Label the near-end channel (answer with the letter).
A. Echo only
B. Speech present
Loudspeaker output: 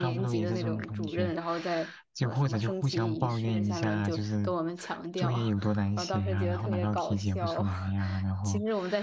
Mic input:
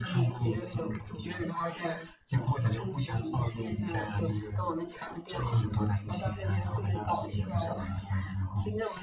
A